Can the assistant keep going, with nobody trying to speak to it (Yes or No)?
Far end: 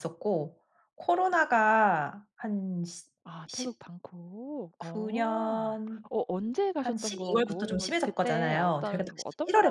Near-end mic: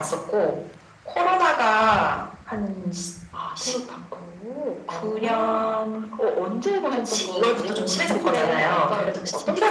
No